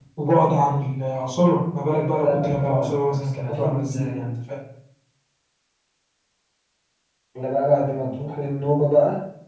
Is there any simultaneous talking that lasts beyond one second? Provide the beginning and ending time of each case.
2.2-4.2

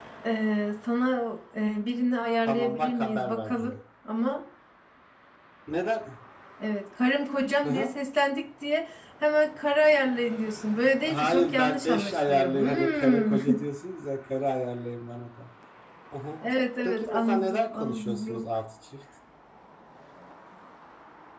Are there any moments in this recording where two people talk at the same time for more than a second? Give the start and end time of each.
2.5-3.7, 11.0-13.3, 16.8-18.4

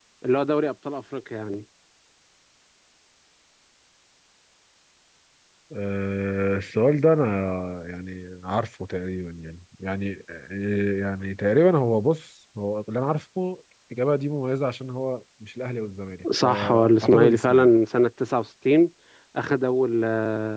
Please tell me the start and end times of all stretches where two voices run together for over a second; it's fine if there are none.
16.4-17.7

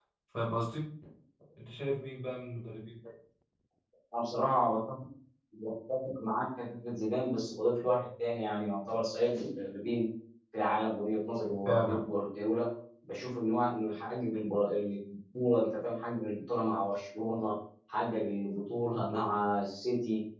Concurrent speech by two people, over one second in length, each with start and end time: none

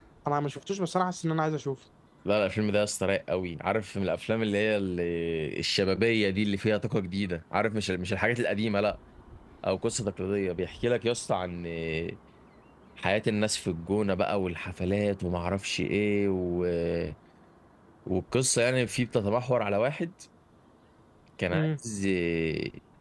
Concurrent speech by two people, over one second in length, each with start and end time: none

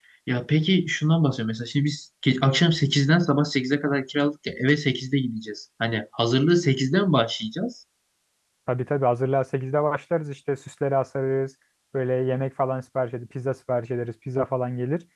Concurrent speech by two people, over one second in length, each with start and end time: none

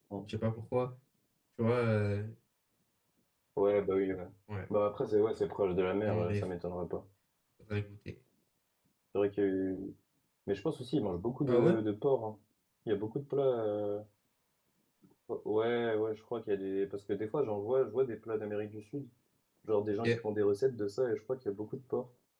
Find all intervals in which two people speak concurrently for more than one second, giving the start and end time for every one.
none

